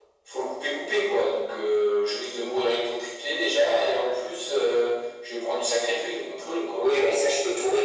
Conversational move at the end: taking over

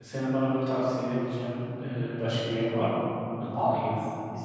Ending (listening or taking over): taking over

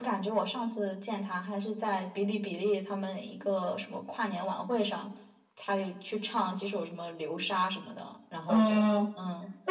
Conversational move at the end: taking over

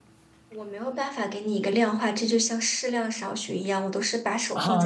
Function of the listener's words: taking over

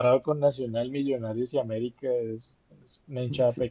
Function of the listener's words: taking over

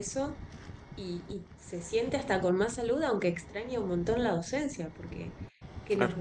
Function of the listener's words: listening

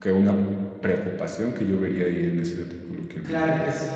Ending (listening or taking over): taking over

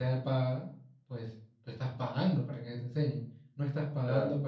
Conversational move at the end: listening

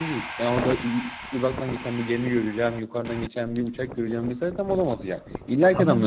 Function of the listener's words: taking over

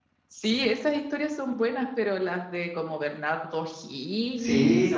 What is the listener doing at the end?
taking over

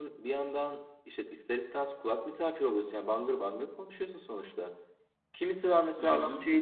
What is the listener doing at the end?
listening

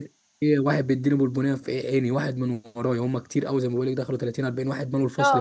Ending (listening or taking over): taking over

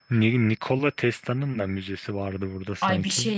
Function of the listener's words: taking over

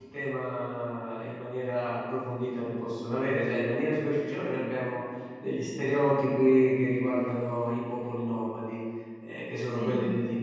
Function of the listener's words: listening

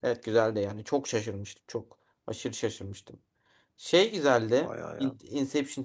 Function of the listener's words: listening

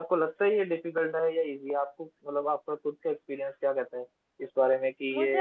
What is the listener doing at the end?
taking over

